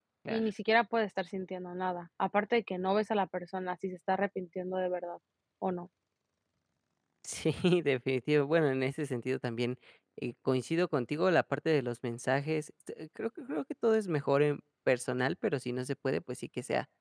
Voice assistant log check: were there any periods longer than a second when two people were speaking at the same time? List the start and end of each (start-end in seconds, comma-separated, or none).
none